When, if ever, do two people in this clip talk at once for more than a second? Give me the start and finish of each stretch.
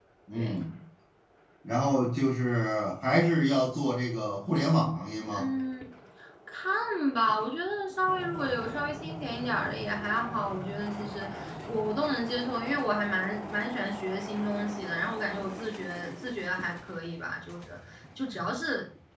none

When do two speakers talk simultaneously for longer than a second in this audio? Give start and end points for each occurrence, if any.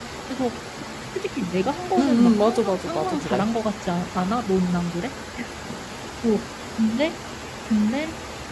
2.0-3.5

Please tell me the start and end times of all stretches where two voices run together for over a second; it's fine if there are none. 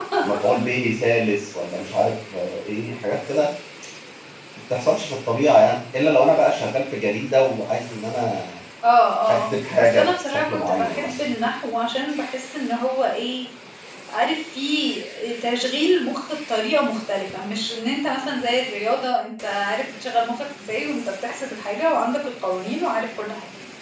9.3-11.3

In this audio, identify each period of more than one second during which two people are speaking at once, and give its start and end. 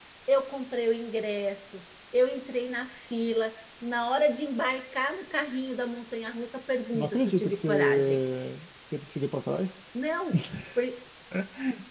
6.9-8.2

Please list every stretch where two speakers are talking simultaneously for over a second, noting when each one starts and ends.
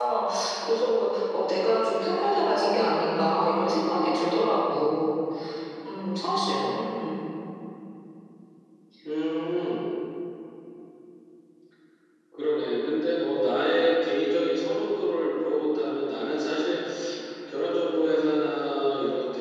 none

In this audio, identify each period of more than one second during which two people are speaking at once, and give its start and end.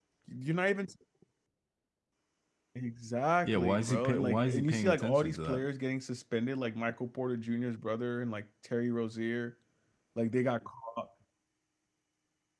3.5-5.7

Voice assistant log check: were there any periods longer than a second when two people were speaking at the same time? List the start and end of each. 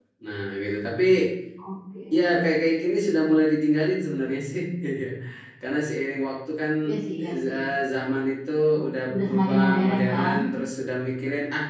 9.1-10.3

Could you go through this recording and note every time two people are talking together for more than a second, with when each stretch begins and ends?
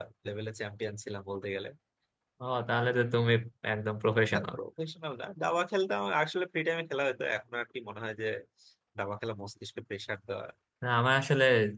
none

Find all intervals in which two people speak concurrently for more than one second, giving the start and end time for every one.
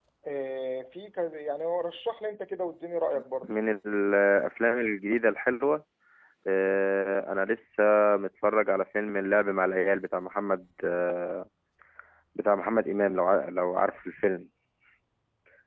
none

